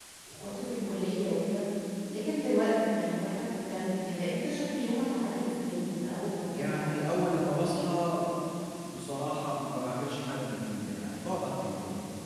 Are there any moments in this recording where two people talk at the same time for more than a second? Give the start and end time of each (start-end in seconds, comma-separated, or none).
6.6-8.0